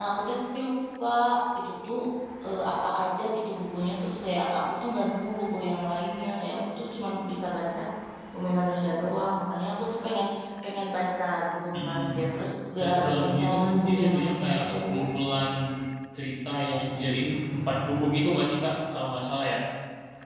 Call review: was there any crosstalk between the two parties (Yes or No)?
Yes